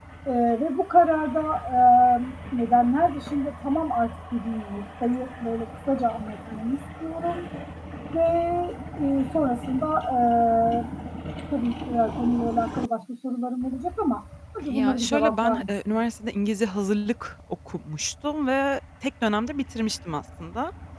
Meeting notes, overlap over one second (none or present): present